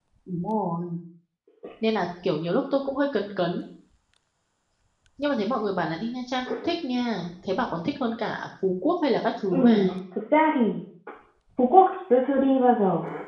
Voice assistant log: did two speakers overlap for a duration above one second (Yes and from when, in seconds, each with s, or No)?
No